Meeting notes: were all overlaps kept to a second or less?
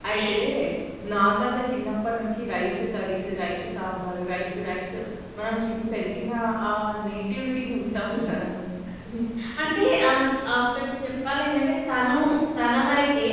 Yes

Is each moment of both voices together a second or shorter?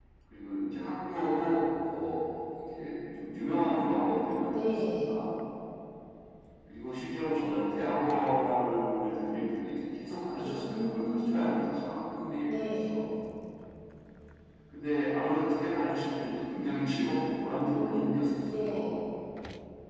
No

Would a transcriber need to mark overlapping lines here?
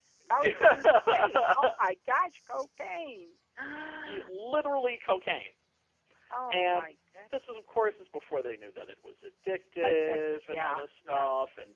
Yes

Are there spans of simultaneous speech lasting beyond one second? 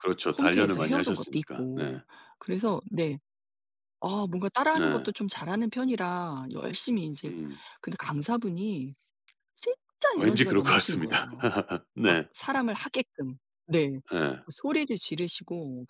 Yes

